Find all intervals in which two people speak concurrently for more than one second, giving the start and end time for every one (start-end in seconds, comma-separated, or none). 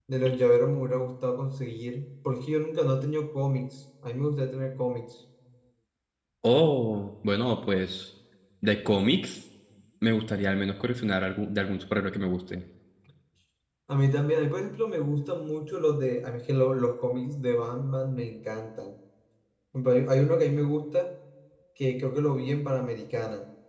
none